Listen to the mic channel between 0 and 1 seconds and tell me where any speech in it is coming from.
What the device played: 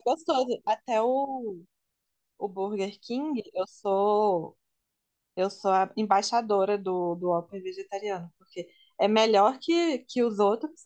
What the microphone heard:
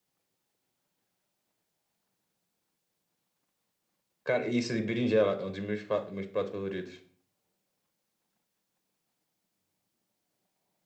neither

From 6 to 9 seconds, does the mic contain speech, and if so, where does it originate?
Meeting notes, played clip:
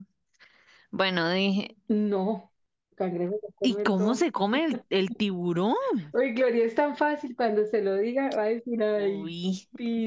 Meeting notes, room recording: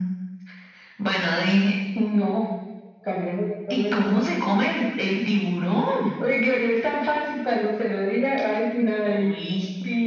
echo only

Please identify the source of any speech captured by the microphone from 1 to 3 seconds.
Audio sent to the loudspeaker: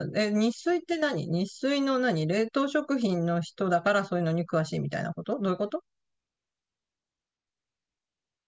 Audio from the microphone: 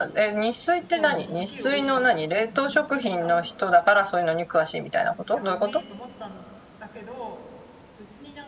both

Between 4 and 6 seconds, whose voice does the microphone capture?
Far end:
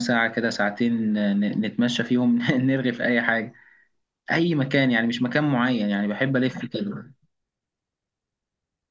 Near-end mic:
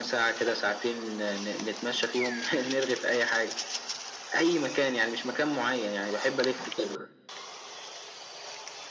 echo only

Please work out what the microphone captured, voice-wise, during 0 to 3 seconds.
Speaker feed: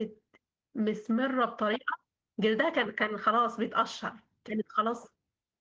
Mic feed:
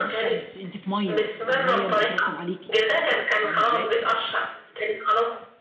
both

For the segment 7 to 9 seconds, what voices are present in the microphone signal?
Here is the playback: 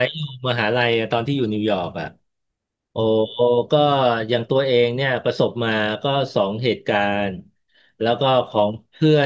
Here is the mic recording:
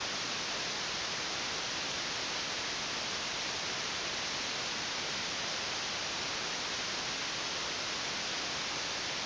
neither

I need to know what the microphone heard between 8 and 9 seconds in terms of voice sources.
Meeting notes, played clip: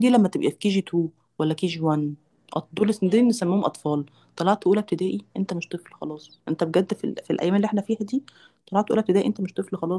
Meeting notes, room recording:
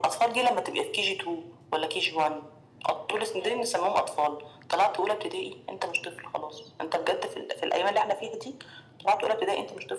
echo only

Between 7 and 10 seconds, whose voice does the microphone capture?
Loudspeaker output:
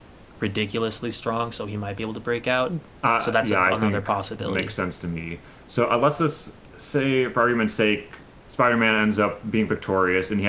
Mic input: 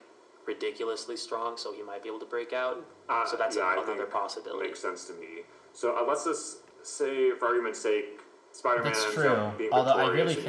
both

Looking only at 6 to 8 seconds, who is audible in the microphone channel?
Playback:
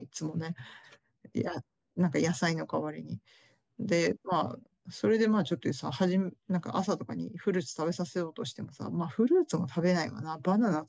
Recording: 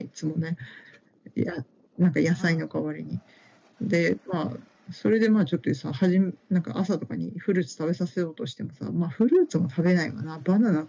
echo only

